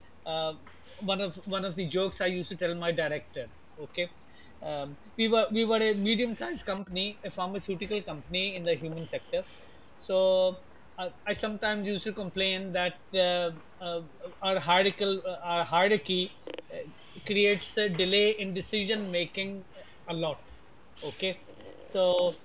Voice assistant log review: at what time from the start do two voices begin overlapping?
none

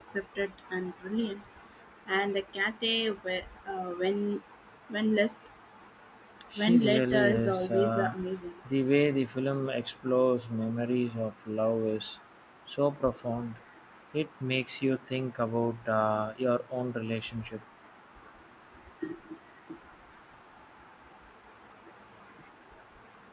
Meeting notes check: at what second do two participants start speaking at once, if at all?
6.6 s

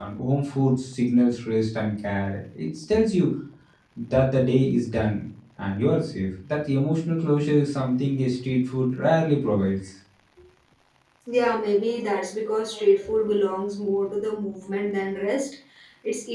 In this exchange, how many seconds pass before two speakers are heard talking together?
none

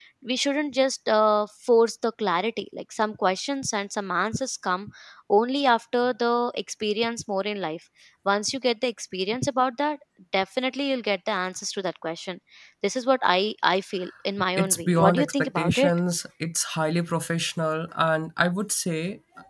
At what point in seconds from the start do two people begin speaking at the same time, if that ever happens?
14.6 s

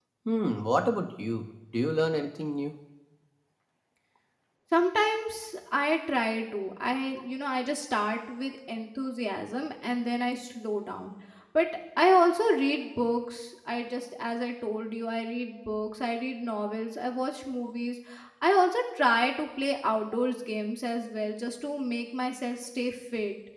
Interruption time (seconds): none

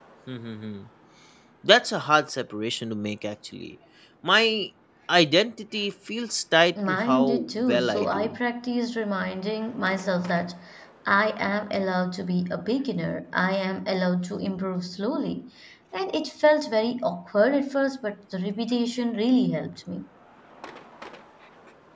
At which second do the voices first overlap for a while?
6.8 s

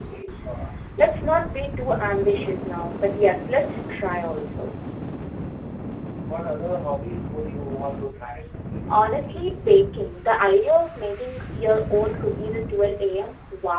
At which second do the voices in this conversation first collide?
none

